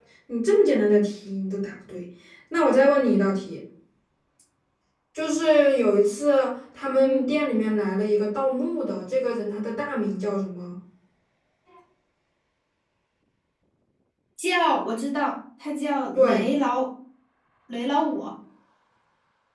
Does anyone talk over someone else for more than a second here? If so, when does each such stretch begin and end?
none

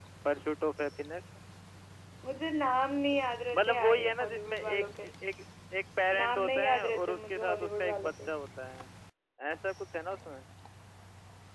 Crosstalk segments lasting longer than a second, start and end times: 3.5-5.1, 6.2-8.3

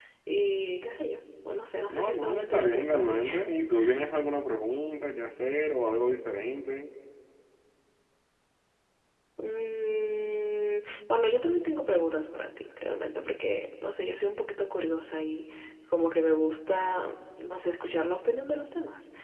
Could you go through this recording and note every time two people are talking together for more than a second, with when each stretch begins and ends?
1.9-3.2

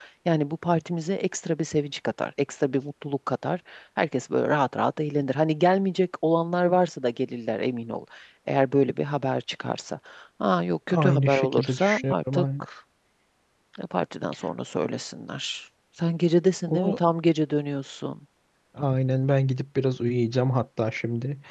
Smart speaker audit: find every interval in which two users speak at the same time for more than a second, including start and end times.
10.9-12.4

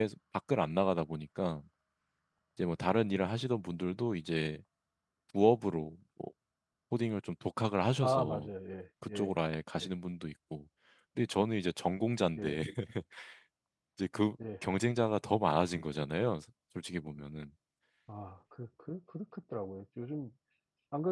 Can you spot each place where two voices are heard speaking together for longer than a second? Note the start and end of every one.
none

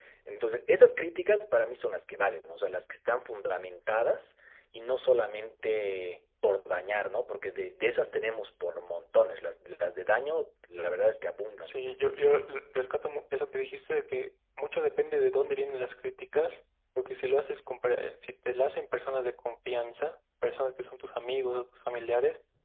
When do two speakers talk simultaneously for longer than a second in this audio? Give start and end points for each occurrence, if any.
none

